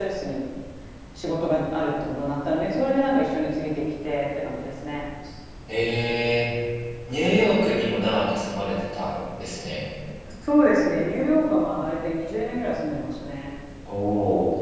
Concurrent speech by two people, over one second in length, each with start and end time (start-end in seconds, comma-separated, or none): none